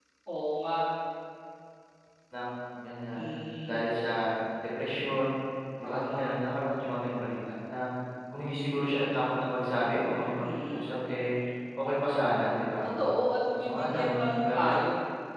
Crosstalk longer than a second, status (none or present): present